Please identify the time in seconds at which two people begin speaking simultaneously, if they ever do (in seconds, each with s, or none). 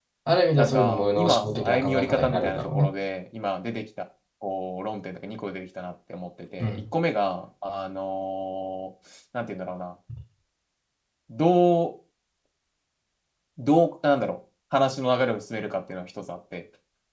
0.6 s